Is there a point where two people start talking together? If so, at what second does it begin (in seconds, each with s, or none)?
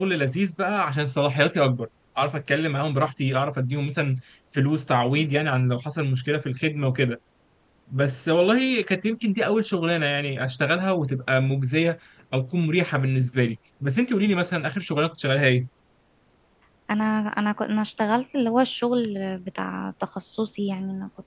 none